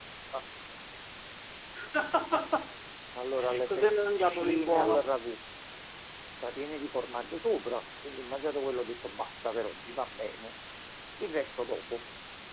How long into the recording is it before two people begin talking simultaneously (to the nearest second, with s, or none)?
4 s